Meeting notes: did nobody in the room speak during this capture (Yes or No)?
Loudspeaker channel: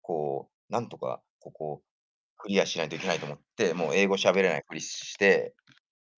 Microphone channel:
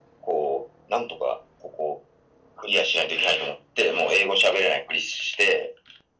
Yes